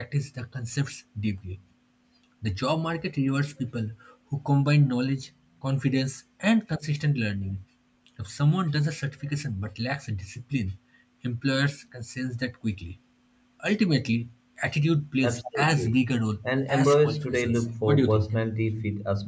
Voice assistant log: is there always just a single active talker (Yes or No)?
No